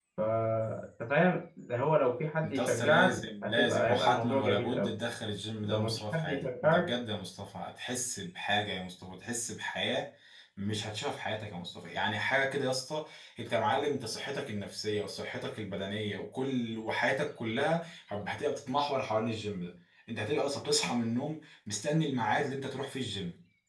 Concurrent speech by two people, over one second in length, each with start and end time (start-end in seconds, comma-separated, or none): 2.4-4.9, 5.7-6.9